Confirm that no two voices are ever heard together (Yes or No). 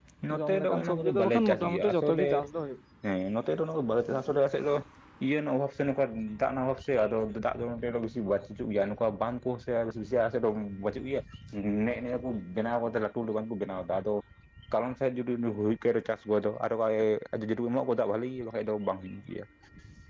No